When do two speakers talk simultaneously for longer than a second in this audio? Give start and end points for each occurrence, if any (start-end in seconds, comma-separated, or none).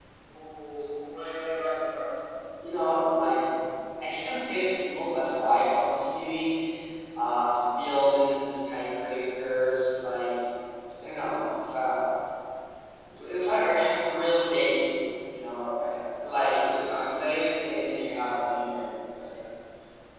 none